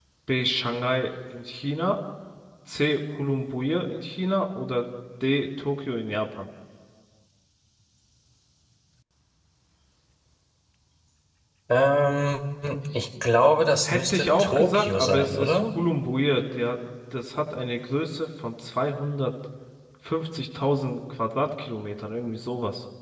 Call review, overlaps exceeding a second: present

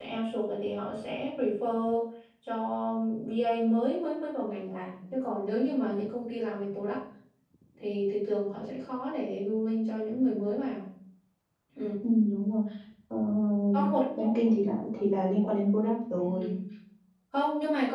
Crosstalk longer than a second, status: none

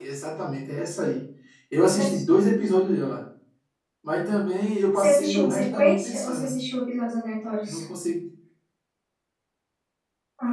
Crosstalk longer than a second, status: present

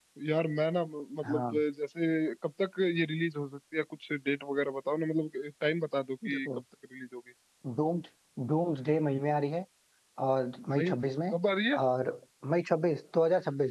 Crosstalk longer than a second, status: none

